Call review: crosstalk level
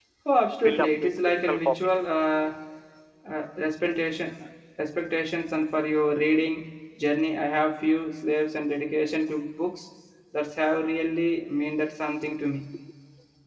present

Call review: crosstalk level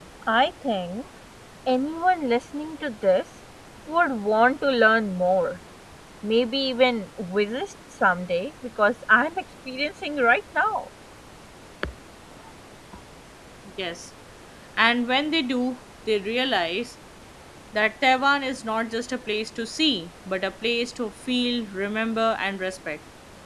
none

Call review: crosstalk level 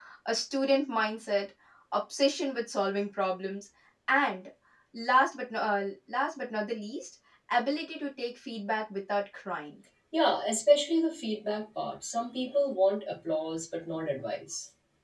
none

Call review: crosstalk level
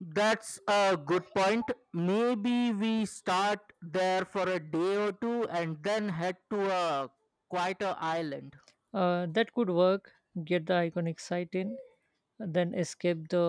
none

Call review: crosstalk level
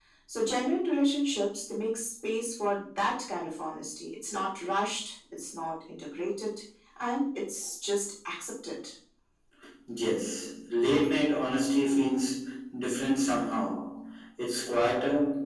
none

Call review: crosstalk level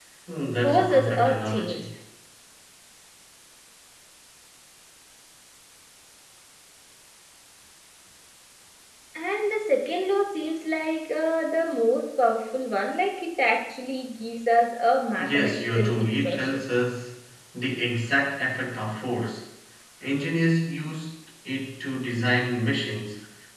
present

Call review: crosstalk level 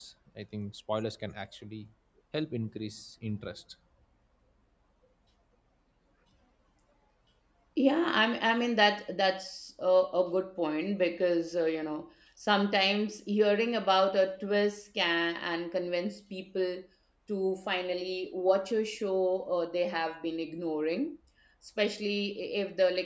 none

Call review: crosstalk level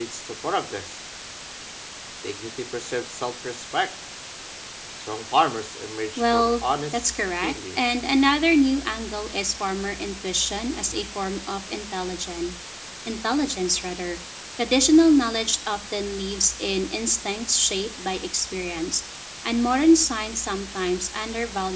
present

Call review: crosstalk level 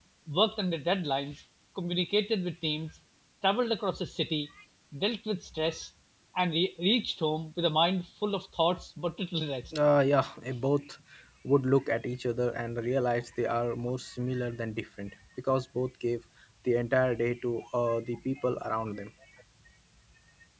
none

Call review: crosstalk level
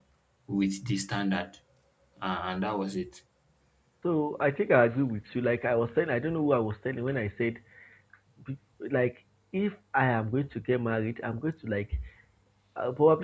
none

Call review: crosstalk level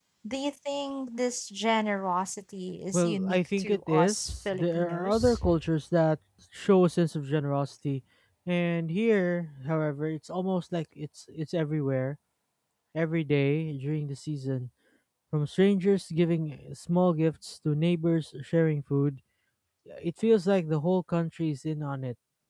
present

